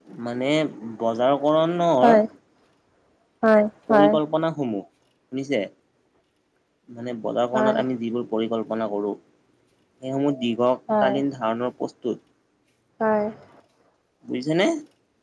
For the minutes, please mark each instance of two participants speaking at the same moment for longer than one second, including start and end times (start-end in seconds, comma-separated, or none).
none